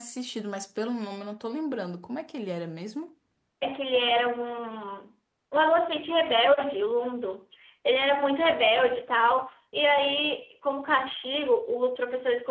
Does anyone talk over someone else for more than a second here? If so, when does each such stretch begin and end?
none

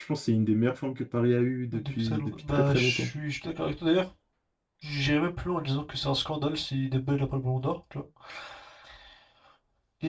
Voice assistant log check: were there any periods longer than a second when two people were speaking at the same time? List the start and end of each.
1.7-3.1

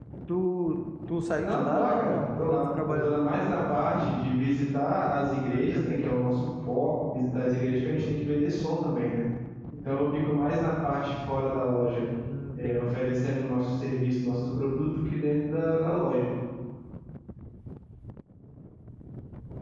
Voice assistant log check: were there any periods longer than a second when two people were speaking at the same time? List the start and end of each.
1.4-3.2

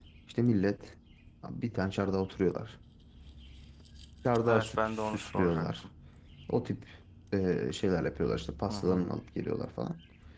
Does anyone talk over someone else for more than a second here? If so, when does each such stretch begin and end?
4.5-5.8

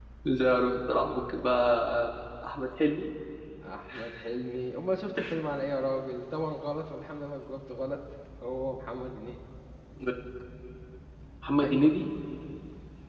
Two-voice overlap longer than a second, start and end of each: none

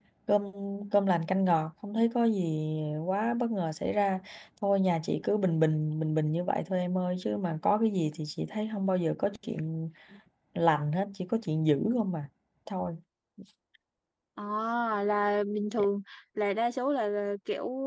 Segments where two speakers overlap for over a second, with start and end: none

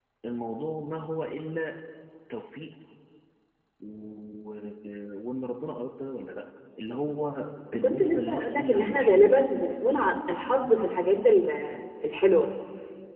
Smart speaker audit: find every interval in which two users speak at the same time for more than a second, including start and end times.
7.8-9.4

